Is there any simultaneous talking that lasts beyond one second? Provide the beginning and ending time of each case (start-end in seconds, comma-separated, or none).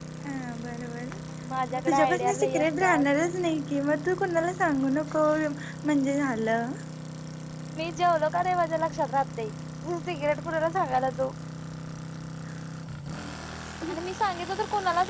1.7-3.0